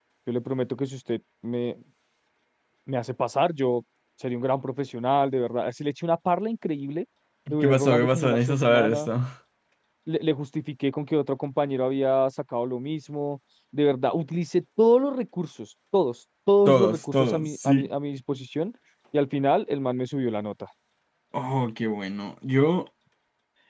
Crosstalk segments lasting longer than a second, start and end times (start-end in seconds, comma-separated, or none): 7.6-9.1, 16.7-17.9